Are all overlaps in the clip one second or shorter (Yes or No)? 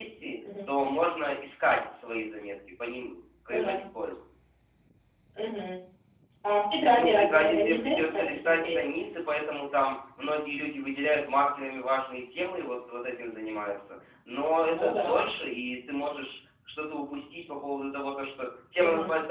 No